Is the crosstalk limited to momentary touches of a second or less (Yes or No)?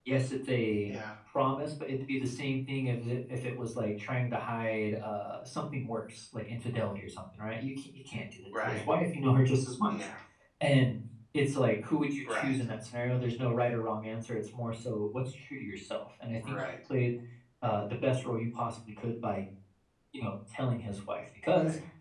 Yes